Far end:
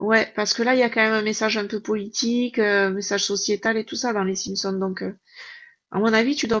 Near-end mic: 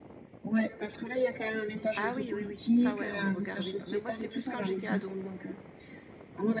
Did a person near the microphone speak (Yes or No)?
Yes